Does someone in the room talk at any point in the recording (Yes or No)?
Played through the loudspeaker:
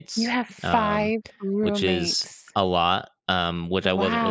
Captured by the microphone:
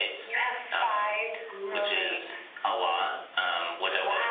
No